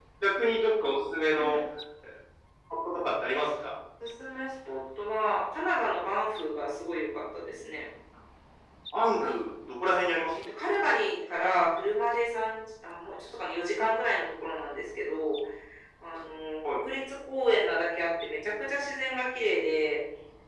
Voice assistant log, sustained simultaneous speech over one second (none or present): none